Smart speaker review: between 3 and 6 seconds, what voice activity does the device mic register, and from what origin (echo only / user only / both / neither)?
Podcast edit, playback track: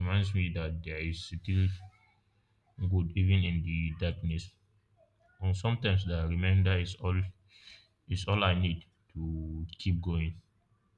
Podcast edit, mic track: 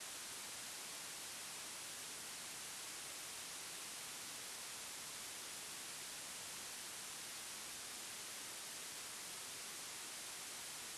neither